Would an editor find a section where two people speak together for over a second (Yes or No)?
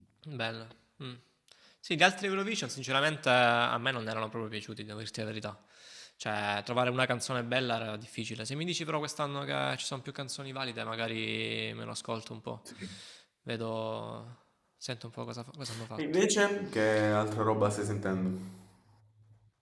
No